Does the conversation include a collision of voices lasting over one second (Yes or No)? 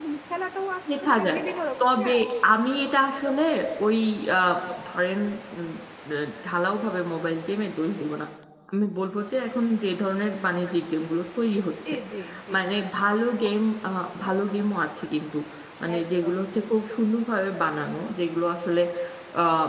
No